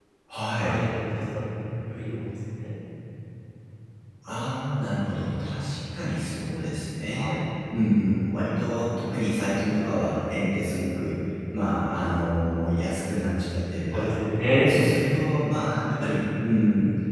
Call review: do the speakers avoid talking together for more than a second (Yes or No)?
Yes